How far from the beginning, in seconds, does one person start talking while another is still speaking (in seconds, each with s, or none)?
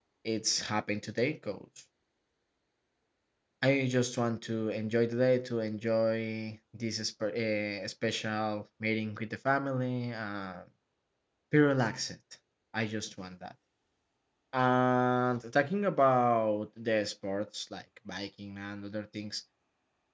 none